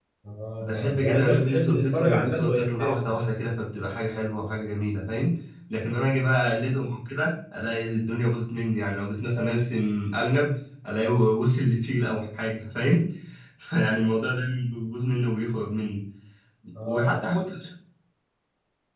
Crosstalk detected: Yes, from 0.6 s

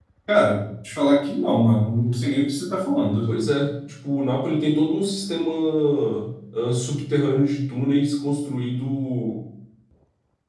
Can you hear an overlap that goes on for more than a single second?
No

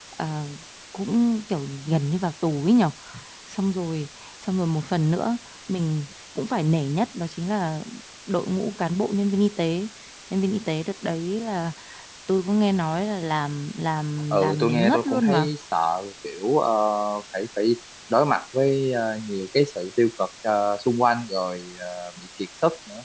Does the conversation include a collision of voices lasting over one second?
Yes, from 14.3 s

